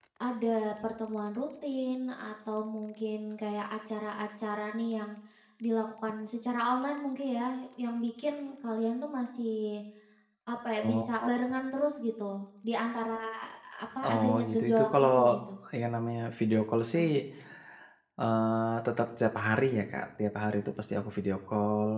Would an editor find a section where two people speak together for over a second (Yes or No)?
Yes